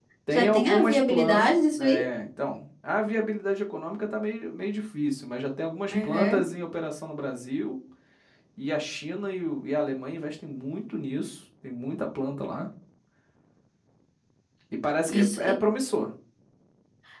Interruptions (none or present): present